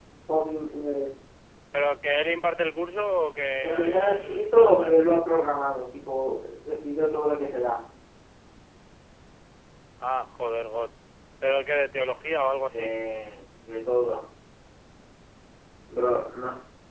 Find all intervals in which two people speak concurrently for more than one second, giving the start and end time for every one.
3.6-5.0

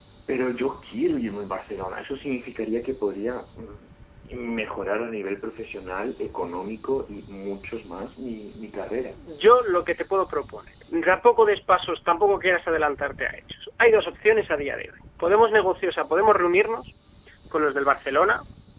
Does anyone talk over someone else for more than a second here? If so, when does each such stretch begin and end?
none

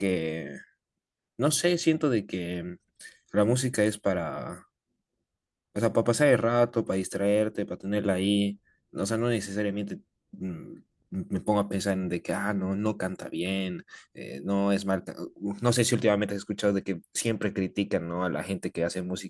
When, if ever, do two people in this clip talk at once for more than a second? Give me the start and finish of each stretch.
none

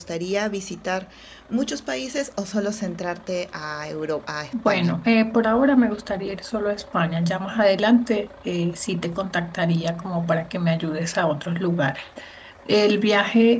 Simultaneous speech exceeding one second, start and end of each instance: none

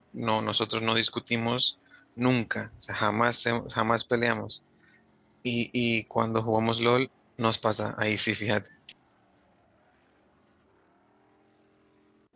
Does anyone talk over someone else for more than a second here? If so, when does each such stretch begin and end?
none

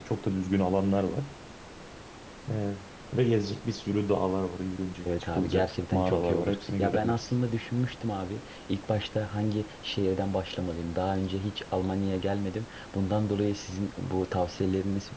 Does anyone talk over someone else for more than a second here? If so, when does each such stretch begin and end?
5.3-7.3

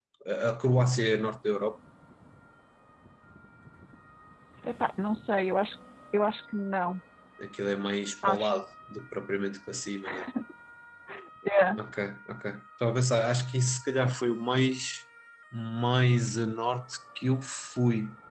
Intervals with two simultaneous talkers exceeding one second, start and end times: none

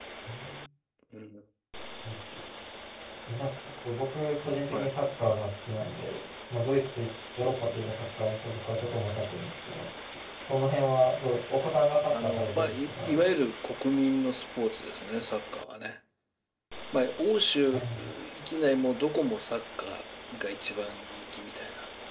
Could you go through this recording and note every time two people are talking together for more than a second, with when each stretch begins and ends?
12.2-13.4

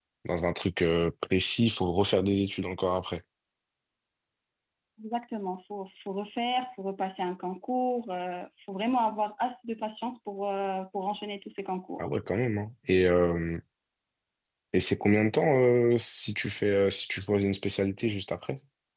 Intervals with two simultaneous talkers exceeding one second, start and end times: none

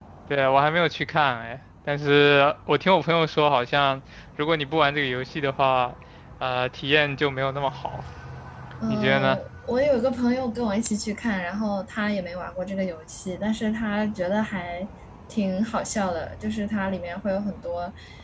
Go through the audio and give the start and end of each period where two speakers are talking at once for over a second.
none

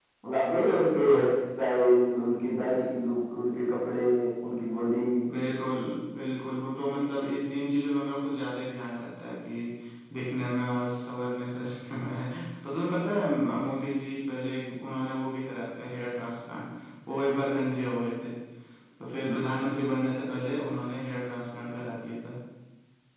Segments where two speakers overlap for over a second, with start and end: none

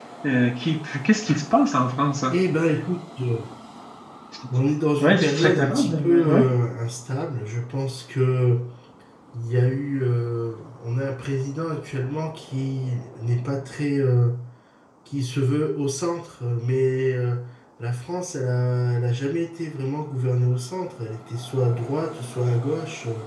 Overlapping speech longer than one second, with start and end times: 5.0-6.5

